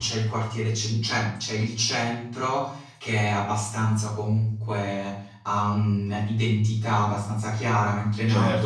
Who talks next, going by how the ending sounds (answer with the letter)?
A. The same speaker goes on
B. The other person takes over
B